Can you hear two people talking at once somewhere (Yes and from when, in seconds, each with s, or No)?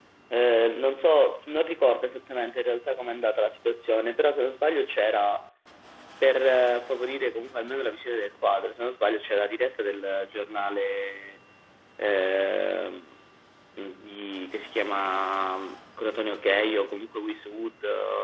No